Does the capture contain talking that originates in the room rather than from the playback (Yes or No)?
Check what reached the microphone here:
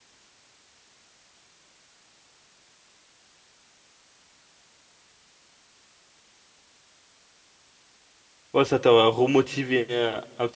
Yes